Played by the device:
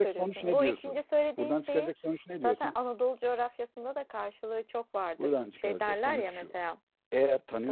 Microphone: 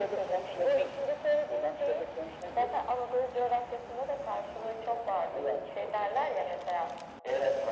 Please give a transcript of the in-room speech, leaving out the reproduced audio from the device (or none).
none